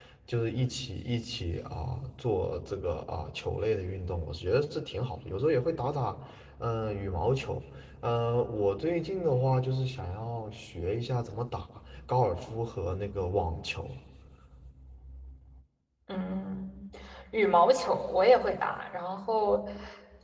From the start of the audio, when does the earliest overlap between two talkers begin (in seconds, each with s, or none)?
none